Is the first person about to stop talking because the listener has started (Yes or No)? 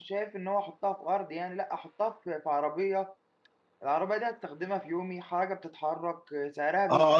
Yes